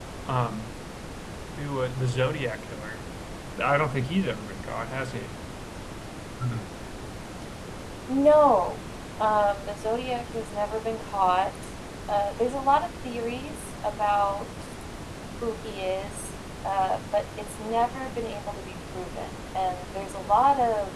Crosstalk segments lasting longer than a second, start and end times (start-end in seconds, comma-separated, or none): none